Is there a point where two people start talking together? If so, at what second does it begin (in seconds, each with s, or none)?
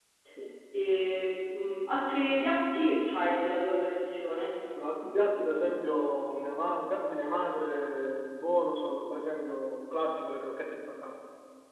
none